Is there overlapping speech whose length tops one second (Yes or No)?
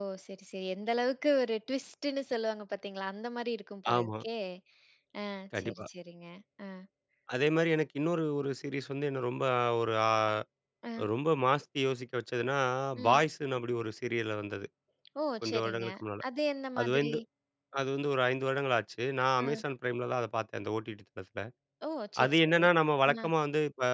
No